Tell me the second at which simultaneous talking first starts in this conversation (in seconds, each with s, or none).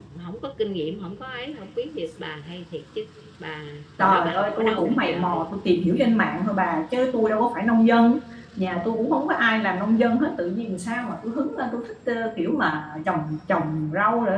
4.0 s